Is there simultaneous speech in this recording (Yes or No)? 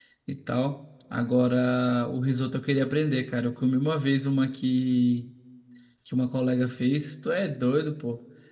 No